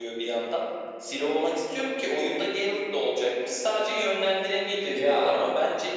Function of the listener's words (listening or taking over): listening